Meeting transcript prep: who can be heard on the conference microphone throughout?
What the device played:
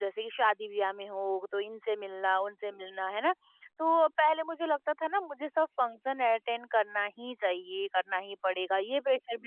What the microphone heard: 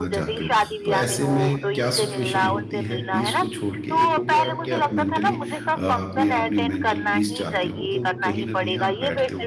both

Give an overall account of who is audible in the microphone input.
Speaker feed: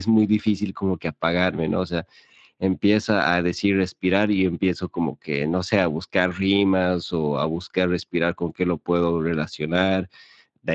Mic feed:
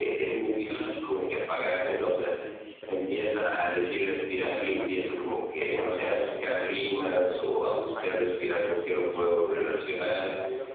both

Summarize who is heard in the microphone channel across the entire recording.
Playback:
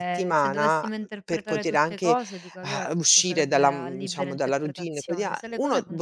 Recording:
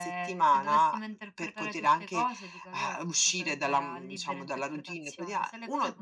echo only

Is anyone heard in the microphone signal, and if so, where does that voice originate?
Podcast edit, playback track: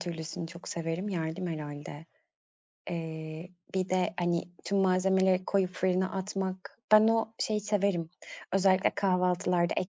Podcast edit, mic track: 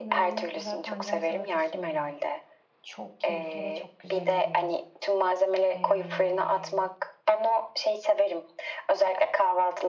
both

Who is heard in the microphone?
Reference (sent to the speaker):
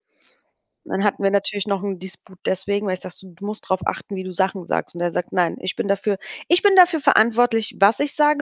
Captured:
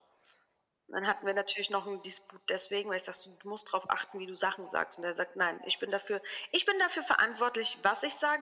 echo only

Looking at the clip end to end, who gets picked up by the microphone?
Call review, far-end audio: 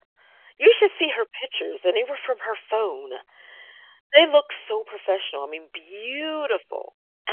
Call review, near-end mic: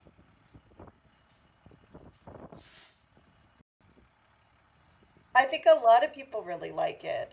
user only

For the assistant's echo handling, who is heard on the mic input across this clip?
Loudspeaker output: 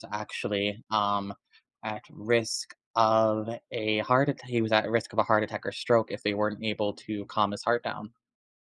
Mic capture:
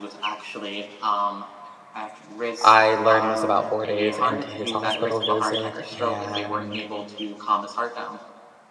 both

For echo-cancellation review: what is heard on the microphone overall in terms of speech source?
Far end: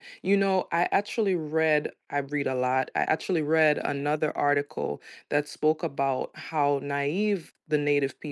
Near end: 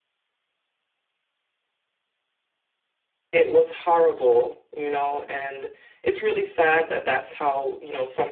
user only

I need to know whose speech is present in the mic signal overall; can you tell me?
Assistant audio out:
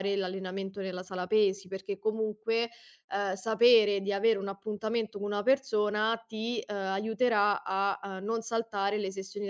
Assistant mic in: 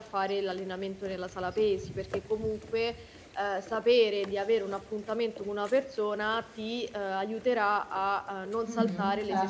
both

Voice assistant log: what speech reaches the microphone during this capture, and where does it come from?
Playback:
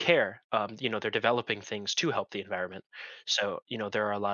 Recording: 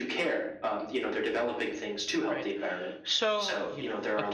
both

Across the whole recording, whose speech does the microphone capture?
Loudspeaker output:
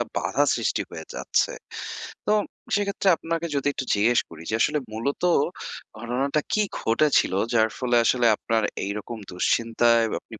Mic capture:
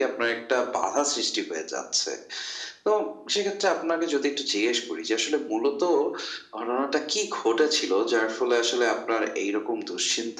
echo only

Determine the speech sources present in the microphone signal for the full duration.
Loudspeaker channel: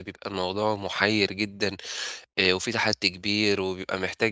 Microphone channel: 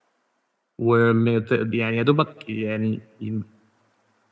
user only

